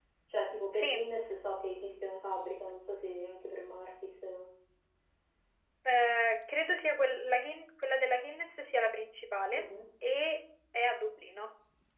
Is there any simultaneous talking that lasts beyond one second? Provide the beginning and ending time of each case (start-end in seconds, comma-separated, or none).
none